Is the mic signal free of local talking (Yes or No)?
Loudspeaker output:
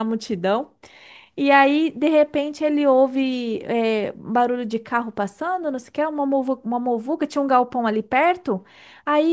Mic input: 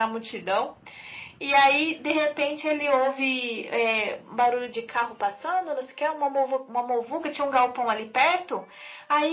Yes